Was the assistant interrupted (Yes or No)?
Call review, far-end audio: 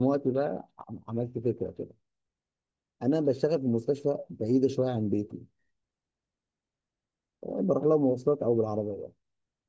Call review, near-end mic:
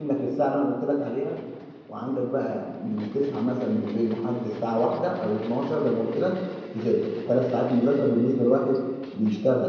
Yes